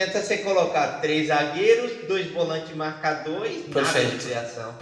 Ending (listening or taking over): taking over